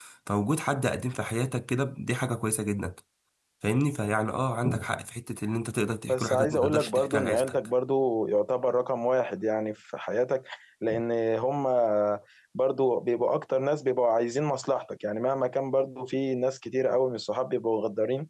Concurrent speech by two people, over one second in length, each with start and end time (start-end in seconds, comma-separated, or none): 6.1-7.5